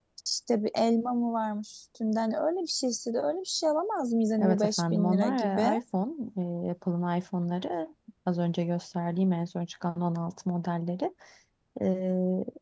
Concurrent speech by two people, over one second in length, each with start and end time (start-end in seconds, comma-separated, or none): 4.4-5.7